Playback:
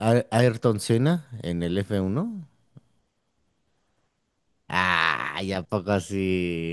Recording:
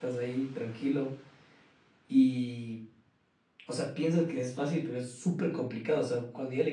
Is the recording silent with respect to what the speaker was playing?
Yes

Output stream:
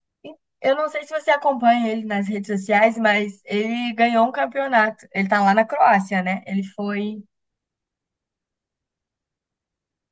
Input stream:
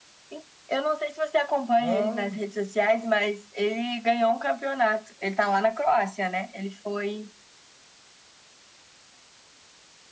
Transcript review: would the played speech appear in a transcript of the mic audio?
Yes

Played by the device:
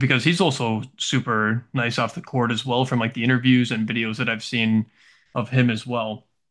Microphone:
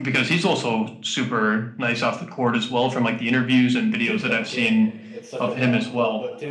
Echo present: Yes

